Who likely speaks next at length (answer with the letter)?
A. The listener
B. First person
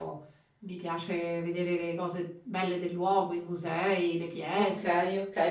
A